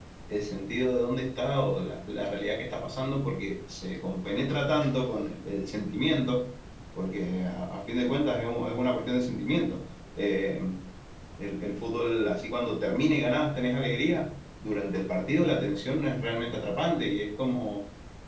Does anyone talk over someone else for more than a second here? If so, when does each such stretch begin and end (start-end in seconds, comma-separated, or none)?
none